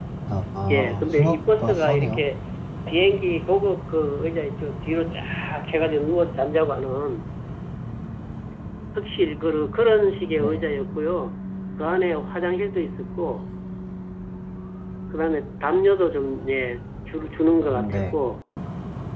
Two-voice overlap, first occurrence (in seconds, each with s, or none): 0.7 s